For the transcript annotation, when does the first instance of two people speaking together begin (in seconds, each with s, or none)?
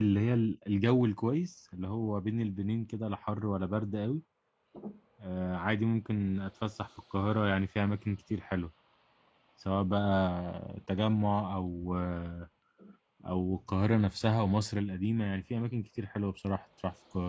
none